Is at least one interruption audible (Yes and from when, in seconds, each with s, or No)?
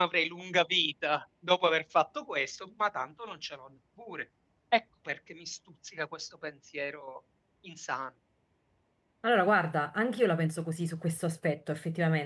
No